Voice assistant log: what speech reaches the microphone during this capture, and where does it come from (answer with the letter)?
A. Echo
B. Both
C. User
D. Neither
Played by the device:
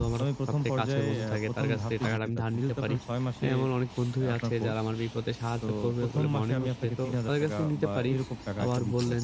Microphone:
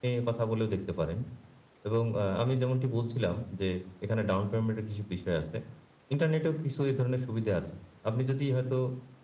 C